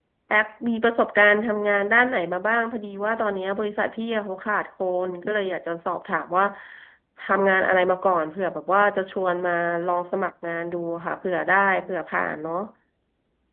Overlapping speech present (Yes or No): No